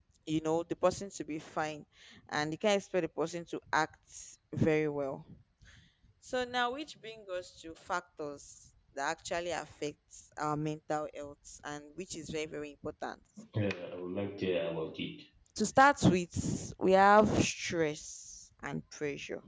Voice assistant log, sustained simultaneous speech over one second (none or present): none